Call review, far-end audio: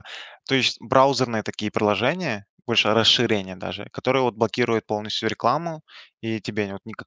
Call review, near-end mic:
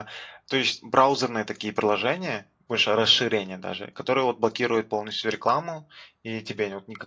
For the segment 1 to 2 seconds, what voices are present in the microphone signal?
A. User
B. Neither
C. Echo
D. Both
C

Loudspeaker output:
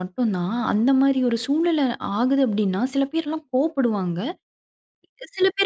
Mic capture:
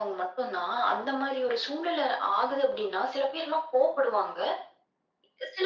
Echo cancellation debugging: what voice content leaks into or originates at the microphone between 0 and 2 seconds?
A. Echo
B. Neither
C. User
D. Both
A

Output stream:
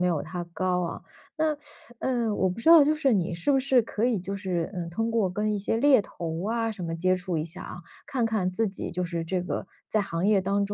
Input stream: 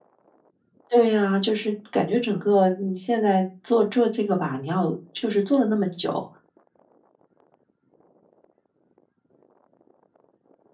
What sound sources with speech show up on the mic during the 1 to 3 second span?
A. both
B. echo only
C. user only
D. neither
C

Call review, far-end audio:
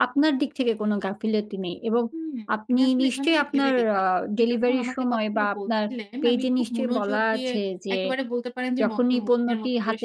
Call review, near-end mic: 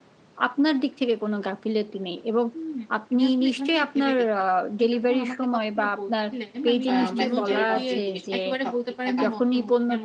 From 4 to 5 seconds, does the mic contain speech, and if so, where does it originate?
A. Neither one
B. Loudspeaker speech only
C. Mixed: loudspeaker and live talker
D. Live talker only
B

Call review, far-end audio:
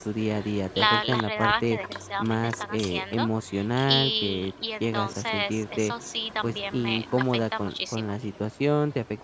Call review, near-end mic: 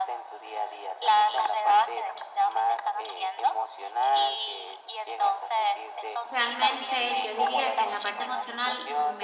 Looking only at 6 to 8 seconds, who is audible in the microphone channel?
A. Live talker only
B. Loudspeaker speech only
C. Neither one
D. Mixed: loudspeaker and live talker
D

